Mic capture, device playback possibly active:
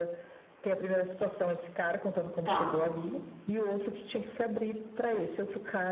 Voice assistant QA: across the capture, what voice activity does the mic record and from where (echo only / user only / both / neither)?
both